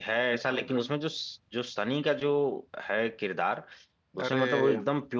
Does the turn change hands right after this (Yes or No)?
No